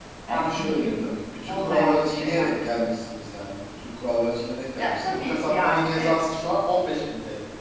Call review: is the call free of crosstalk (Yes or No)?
No